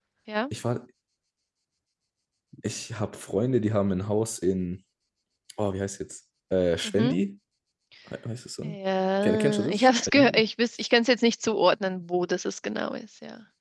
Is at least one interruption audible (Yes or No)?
Yes